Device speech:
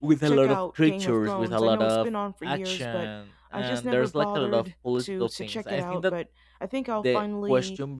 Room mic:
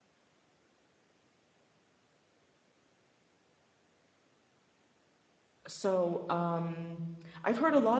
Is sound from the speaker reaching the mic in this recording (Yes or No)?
No